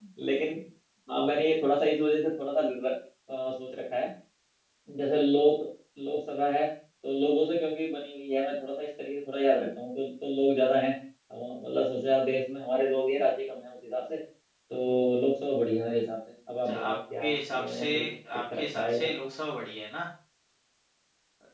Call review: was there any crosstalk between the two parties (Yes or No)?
Yes